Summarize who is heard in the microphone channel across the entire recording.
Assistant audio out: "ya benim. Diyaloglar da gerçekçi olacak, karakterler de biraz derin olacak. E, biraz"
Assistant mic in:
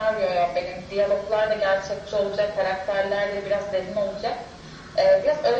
echo only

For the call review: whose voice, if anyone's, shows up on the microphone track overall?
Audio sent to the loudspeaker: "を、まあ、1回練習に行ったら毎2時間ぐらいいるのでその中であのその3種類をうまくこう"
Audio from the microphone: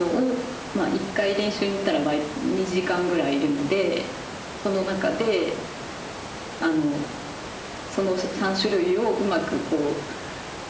echo only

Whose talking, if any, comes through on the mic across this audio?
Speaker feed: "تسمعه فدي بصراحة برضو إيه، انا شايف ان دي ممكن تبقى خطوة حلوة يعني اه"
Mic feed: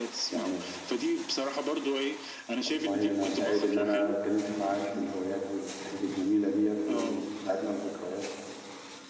both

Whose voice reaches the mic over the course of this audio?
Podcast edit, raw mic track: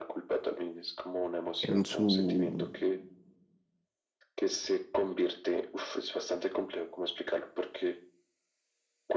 both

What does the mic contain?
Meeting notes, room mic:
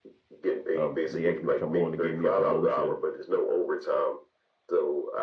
both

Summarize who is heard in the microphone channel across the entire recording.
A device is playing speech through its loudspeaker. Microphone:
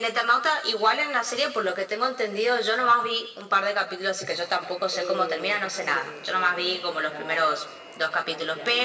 both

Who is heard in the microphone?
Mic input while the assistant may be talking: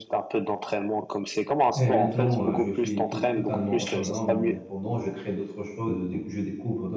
both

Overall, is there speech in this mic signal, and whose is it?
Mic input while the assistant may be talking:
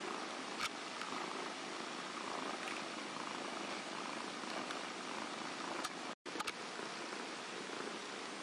neither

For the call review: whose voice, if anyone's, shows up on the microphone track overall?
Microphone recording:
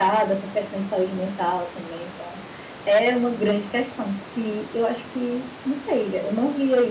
user only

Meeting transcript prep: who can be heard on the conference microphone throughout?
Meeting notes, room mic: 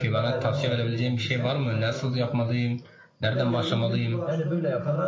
both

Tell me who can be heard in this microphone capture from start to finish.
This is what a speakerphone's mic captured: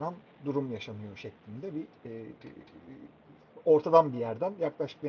user only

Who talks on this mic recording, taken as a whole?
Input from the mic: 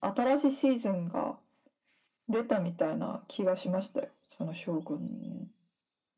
echo only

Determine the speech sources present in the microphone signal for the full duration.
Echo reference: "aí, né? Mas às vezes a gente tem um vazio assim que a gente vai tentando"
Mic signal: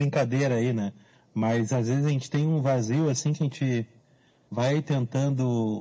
echo only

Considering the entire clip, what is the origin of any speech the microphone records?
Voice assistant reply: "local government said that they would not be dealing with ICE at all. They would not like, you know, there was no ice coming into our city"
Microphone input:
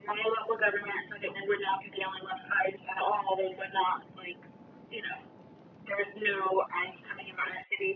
echo only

